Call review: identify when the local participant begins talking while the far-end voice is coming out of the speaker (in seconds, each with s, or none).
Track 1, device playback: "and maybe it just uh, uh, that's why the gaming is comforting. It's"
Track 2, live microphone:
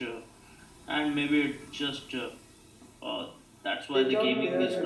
3.9 s